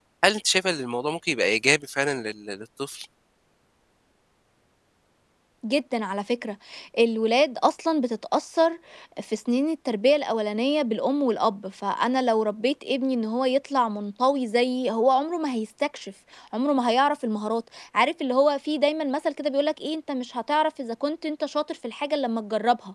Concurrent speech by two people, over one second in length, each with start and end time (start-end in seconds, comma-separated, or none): none